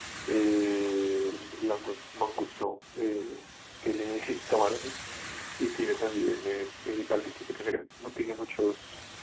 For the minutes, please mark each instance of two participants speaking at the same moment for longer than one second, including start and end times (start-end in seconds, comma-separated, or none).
none